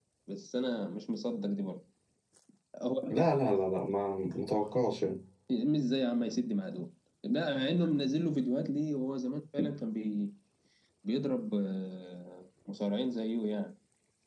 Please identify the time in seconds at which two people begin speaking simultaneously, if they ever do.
none

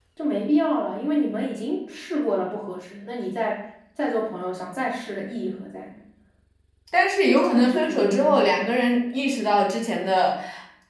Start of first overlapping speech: 7.2 s

